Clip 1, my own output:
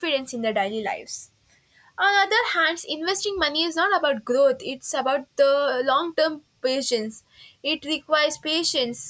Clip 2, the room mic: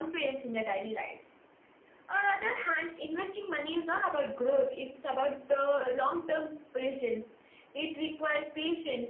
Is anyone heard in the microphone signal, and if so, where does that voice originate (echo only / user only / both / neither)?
echo only